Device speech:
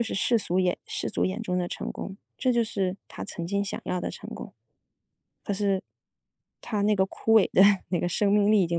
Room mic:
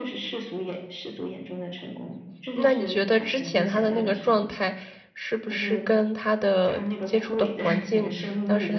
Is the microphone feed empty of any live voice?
No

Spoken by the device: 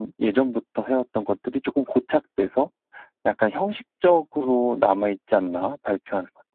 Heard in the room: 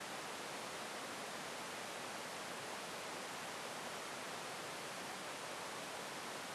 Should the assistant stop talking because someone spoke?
No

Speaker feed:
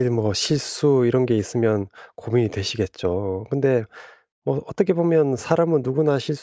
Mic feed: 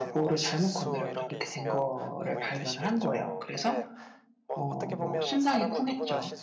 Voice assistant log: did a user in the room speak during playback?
Yes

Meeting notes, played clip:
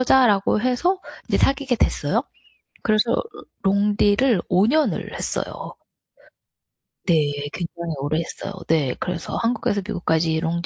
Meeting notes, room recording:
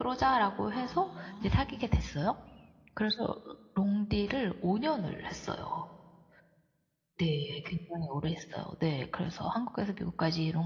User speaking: Yes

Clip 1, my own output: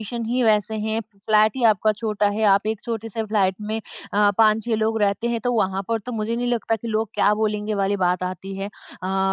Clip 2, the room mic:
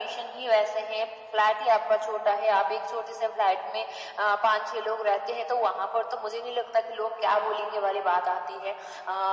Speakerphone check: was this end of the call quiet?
Yes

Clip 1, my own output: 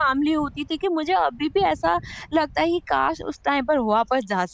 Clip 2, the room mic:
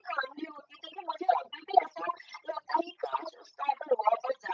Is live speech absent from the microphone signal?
Yes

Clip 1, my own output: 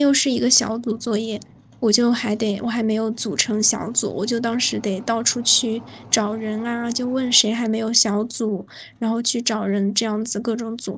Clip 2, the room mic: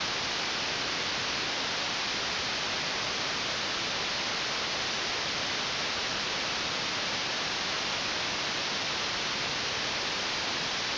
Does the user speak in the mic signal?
No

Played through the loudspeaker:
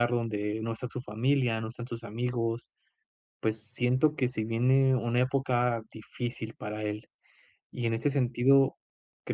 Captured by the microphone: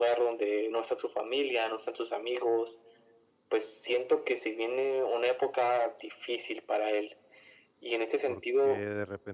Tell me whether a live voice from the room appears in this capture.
Yes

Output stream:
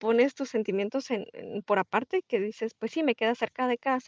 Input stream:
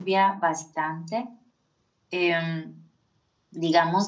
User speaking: Yes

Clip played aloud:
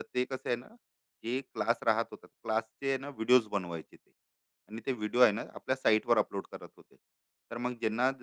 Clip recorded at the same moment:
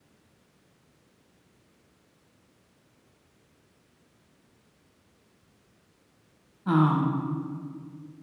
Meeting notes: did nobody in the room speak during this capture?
No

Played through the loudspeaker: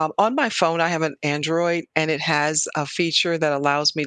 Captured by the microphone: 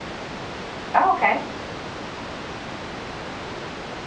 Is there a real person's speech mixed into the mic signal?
Yes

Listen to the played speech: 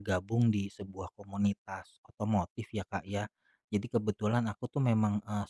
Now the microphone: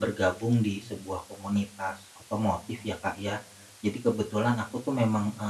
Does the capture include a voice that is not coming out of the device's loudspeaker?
No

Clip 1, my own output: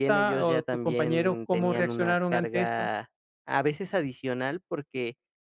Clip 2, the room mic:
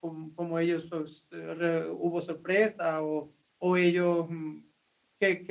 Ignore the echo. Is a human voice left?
Yes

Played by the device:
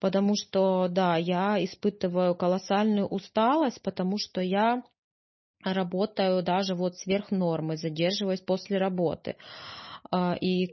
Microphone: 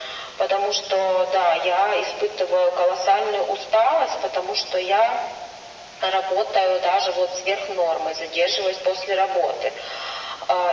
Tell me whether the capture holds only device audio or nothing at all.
Yes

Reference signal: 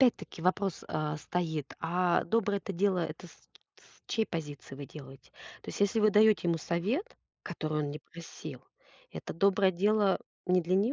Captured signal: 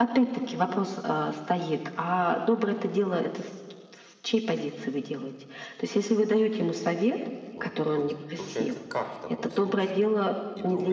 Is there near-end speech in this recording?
Yes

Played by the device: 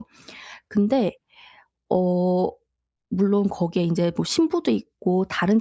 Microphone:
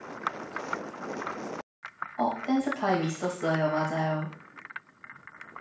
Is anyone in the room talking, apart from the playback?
Yes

